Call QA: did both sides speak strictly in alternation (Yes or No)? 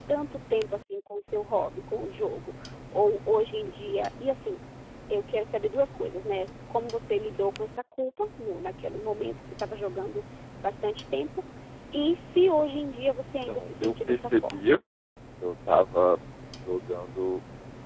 No